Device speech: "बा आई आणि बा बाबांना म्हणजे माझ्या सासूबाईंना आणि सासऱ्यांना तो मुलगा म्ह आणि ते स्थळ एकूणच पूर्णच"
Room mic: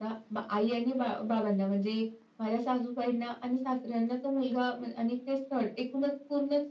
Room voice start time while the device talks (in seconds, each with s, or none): none